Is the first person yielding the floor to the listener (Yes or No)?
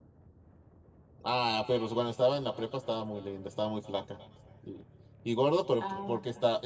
No